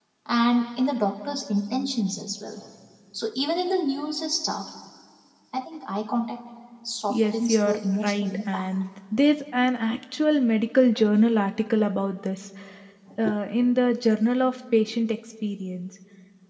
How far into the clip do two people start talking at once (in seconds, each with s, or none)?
7.1 s